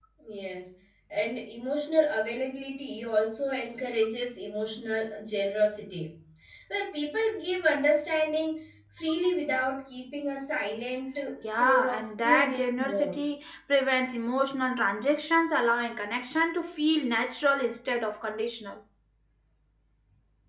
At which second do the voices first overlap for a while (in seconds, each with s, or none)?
11.4 s